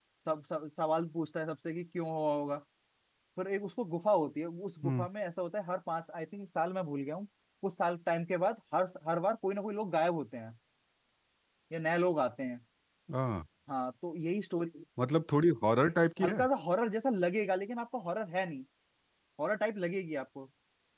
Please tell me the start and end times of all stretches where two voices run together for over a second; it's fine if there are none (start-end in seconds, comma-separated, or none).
none